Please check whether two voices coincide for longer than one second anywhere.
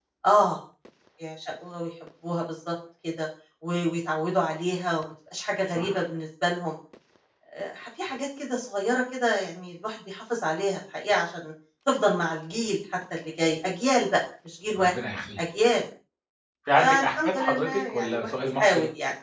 Yes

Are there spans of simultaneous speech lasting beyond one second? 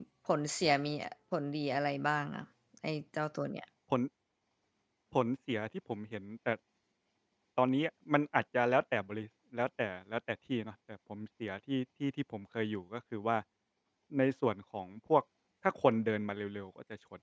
No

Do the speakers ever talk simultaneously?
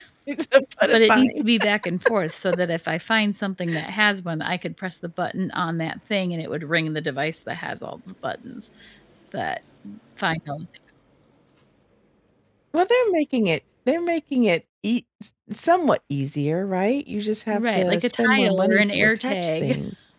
Yes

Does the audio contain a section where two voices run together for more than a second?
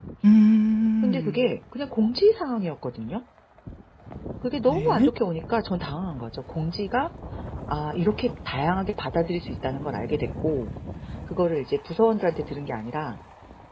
No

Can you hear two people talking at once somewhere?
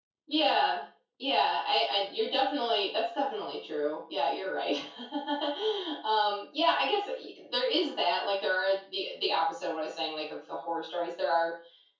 No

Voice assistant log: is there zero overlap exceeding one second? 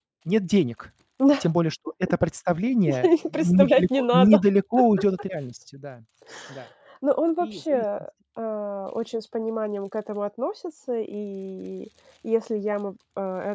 No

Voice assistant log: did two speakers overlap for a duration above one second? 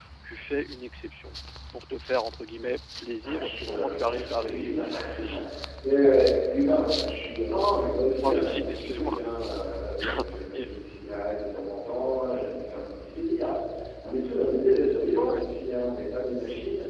Yes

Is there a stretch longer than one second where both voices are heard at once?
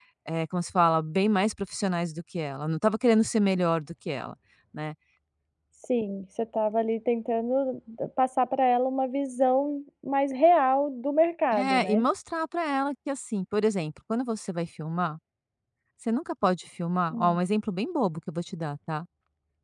No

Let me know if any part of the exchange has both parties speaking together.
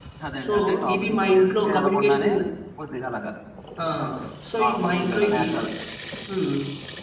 Yes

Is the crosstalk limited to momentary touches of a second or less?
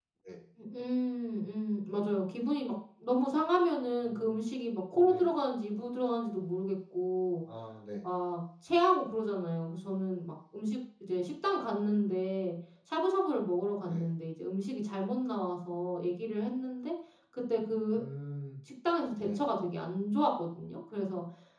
Yes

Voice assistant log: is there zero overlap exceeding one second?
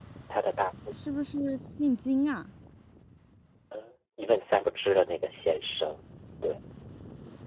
Yes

